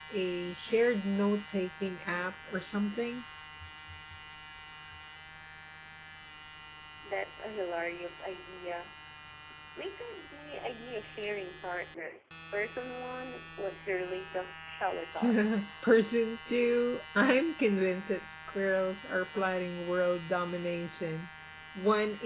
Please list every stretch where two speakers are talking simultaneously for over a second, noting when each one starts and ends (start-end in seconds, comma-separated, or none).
none